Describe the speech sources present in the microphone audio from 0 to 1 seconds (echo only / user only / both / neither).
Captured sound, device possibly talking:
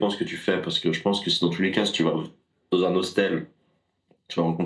echo only